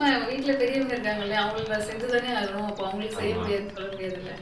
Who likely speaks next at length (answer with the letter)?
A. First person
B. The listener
A